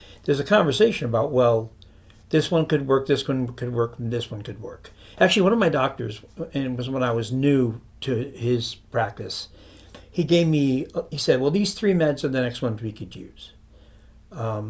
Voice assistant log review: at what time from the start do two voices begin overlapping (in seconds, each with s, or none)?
none